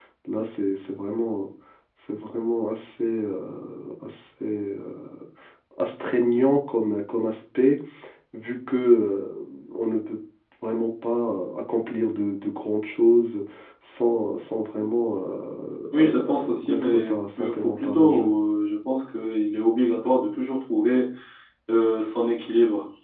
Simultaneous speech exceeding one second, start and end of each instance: 16.0-18.4

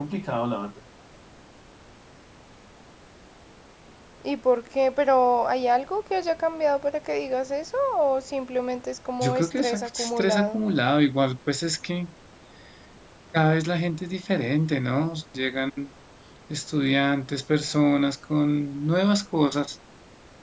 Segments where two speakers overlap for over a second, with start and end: 9.2-10.6

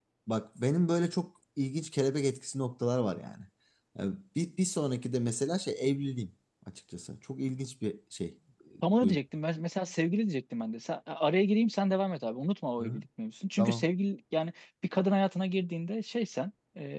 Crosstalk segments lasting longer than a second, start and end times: none

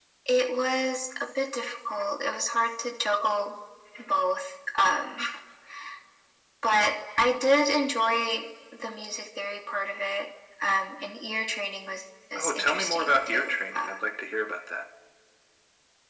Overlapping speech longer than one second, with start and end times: 12.3-13.9

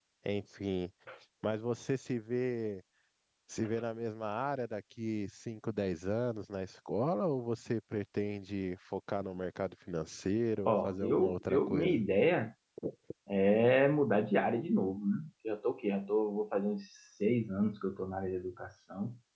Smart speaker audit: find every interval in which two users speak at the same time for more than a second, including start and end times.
10.6-12.0

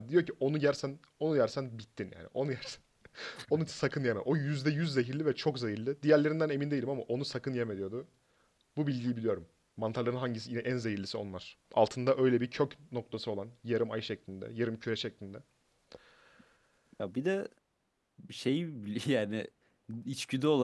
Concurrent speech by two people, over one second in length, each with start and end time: none

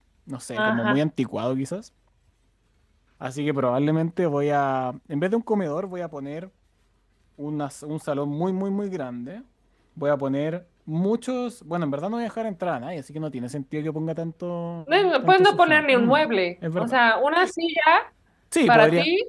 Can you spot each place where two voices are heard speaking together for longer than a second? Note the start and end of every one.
14.9-16.2

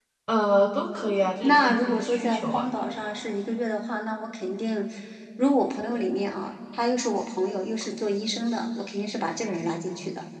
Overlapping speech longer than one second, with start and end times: 1.4-2.7

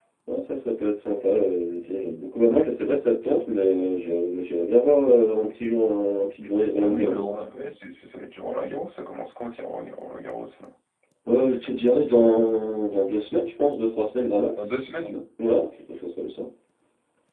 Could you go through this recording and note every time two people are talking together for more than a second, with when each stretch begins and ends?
none

